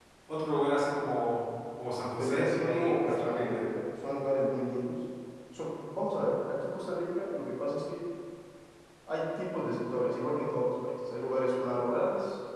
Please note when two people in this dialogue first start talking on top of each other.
2 s

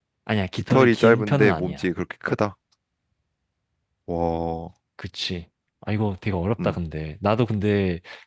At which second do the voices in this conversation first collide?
1 s

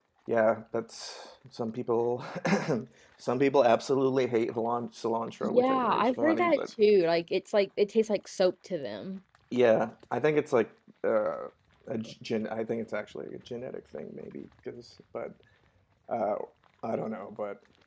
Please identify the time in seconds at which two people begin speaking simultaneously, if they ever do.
5 s

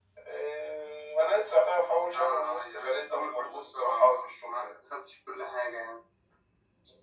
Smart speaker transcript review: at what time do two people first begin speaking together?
2 s

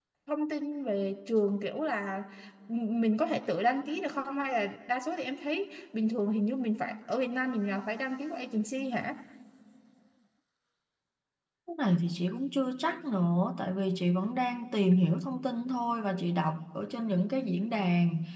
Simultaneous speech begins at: none

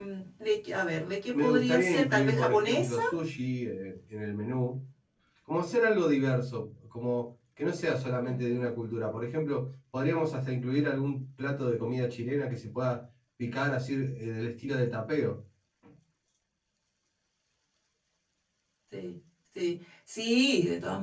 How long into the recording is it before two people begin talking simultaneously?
1 s

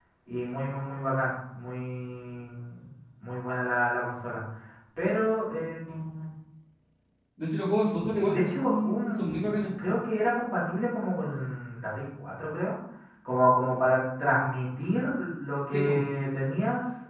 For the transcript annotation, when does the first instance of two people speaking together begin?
8 s

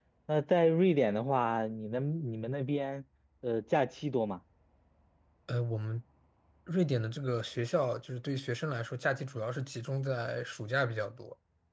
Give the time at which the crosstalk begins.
none

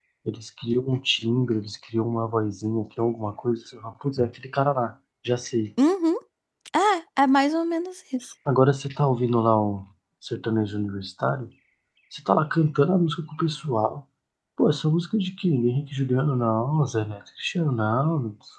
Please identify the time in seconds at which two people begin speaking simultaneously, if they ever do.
none

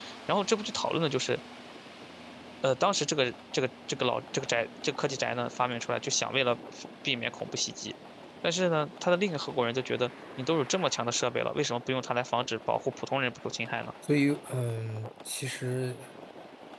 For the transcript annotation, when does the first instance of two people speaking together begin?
none

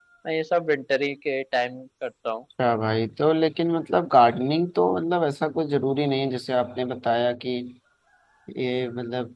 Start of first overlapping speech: none

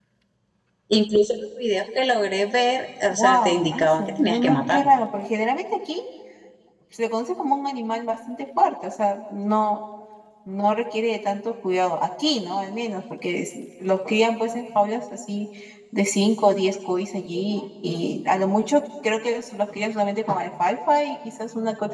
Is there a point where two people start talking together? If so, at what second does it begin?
3 s

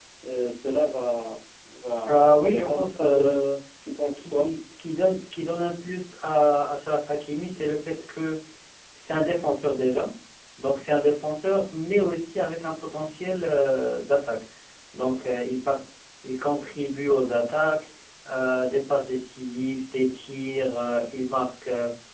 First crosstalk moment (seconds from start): 2 s

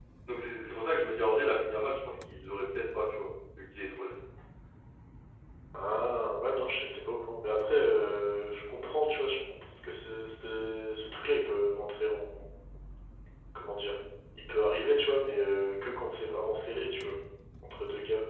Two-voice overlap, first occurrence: none

